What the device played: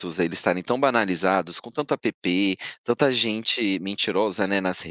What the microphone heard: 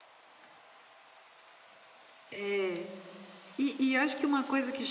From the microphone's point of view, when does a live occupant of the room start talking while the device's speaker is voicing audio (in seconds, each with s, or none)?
2.3 s